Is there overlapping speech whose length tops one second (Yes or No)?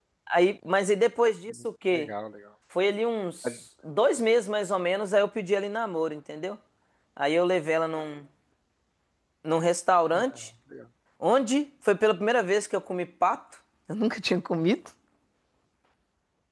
No